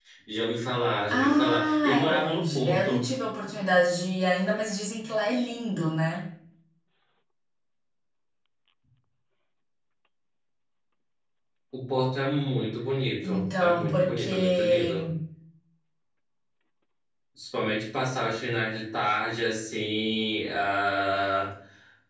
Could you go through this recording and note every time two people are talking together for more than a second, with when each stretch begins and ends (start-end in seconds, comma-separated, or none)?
1.1-3.1, 13.2-14.9